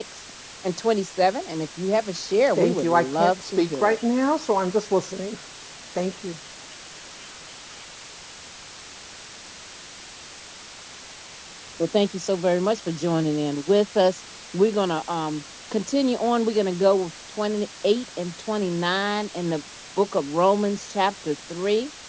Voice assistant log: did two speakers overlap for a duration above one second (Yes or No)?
Yes